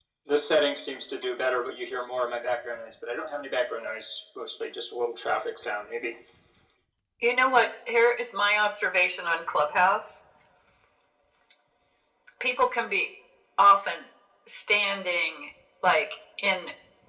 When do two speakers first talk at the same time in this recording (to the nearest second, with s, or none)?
none